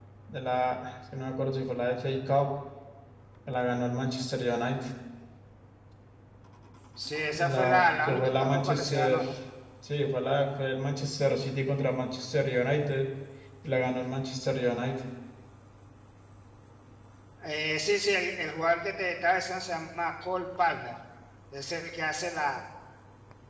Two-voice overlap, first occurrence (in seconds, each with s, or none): 7.3 s